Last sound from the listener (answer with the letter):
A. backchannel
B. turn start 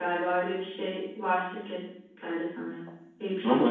B